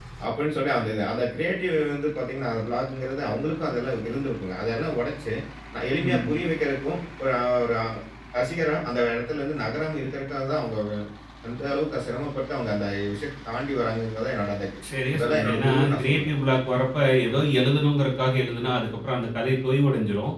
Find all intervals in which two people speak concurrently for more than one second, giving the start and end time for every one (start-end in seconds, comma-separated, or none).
15.1-16.4